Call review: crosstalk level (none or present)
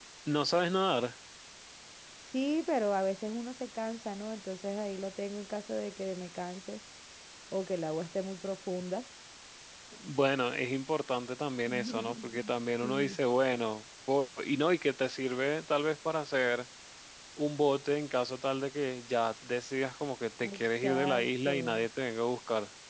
present